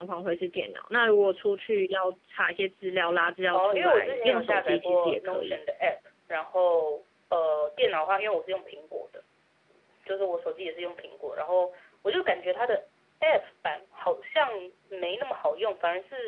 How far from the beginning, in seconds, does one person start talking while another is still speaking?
3.5 s

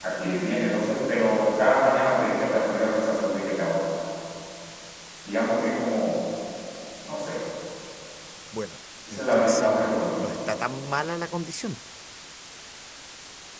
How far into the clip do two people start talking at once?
9.1 s

